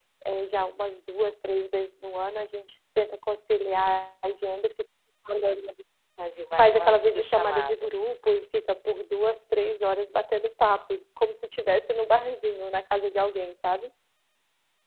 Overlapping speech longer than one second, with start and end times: 6.6-7.9

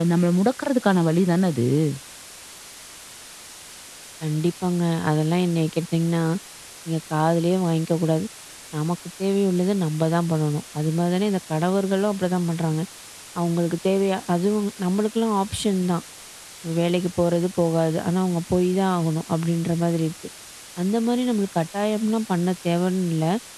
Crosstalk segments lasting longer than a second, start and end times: none

